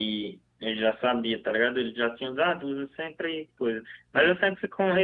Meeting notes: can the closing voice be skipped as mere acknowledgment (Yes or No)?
Yes